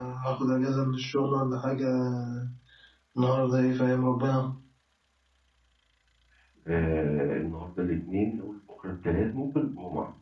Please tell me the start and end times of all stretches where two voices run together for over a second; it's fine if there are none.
none

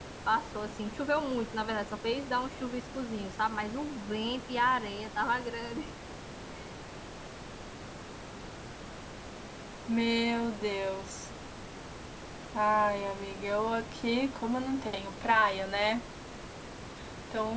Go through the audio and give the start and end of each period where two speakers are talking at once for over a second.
none

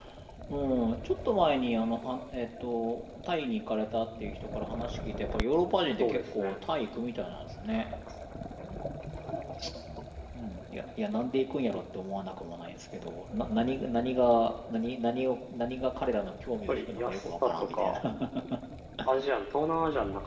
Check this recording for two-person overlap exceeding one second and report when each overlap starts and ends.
16.7-18.0

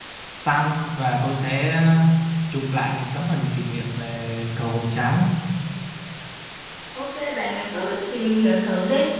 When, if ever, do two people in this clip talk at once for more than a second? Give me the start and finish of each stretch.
none

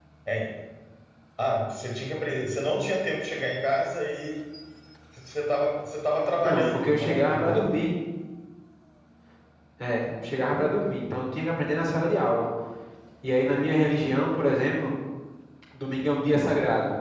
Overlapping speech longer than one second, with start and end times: 6.4-7.7

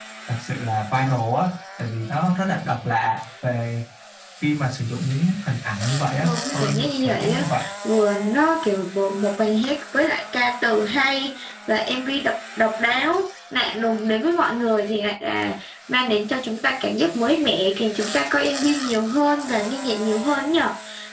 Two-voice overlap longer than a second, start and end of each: 6.2-7.5

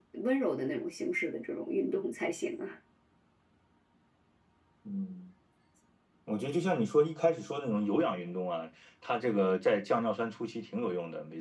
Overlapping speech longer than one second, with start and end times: none

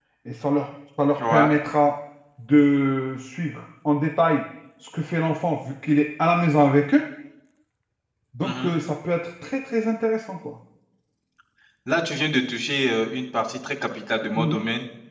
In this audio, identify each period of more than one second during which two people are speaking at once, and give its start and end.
none

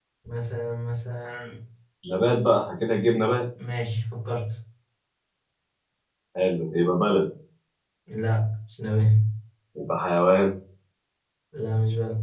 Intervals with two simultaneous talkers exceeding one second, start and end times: none

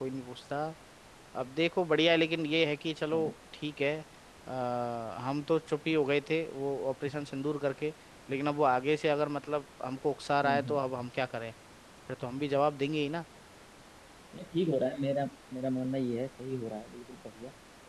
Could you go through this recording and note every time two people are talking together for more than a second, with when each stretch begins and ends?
none

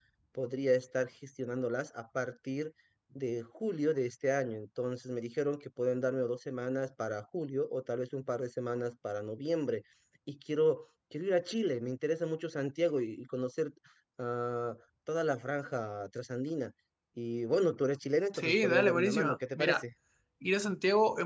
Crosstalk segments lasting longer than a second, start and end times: 18.3-19.8

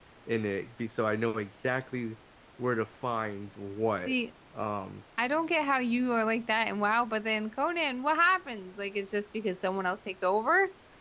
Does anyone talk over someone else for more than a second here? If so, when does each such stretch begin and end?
none

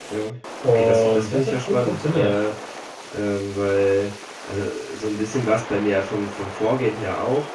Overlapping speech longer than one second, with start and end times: 0.6-2.4

